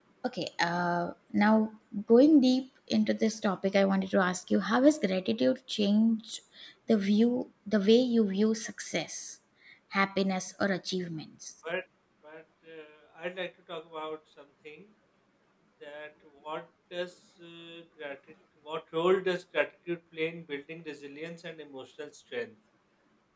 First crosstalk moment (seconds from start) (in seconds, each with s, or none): none